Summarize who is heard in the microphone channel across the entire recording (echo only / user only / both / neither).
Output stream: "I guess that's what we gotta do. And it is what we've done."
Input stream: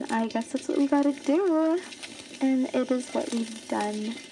echo only